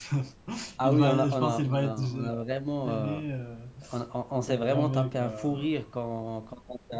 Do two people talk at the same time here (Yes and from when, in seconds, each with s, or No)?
Yes, from 0.8 s